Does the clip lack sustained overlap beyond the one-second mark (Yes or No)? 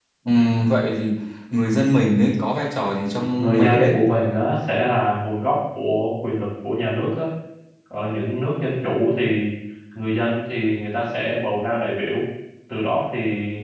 Yes